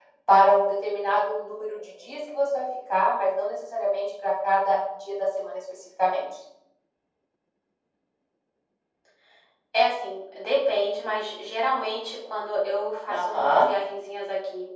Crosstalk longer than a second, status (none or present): none